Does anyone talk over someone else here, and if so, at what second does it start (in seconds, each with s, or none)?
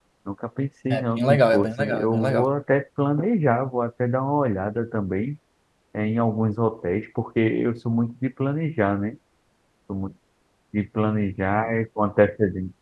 0.9 s